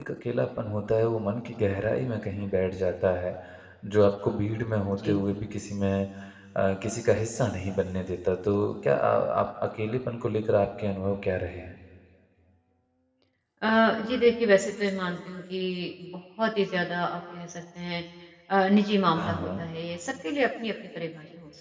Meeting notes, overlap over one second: none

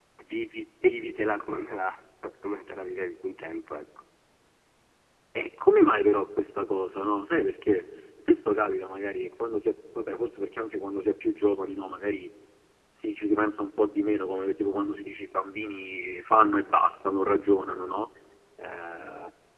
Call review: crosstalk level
none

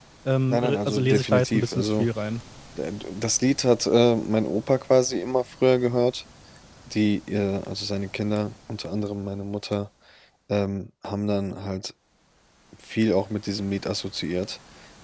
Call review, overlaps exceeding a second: present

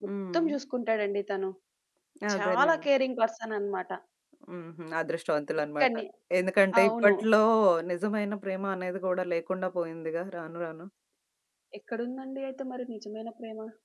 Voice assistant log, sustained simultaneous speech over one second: none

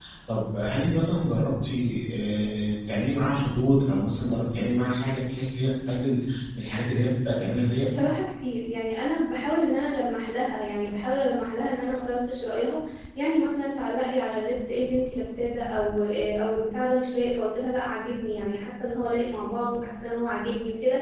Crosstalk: none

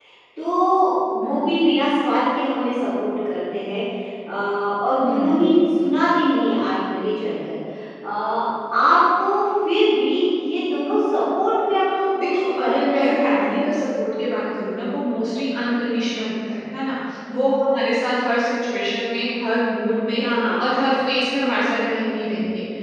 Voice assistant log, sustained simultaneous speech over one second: present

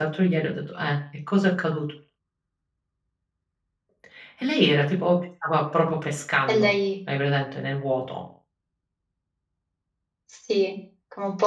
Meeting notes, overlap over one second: none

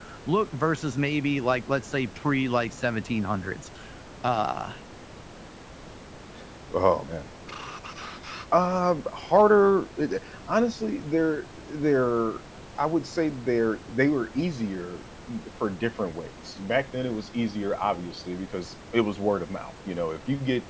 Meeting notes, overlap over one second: none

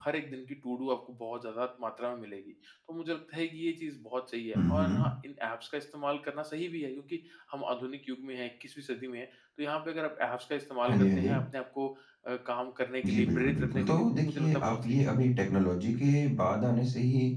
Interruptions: present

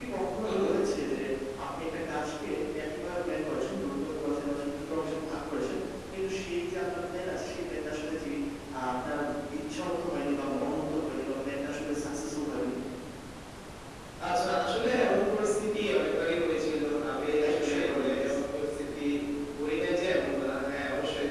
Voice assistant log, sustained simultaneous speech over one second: present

